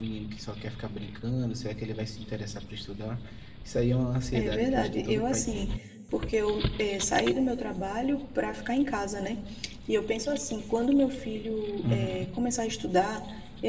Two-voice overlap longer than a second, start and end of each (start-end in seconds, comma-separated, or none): 4.3-5.7